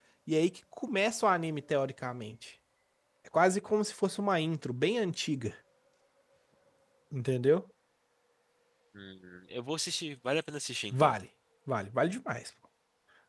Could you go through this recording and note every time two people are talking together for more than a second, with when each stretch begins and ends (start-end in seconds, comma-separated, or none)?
none